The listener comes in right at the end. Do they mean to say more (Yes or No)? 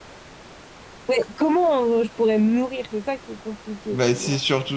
Yes